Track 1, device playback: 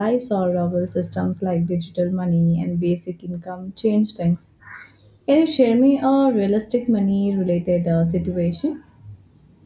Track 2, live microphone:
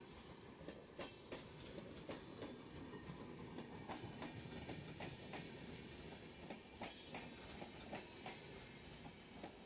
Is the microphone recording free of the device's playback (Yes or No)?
Yes